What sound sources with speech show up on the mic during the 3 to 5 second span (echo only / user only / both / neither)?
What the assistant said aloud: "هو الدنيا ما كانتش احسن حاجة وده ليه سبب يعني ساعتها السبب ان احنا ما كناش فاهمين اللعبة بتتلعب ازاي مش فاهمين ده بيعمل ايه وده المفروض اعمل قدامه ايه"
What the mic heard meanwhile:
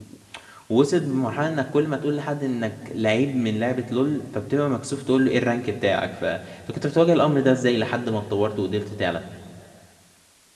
user only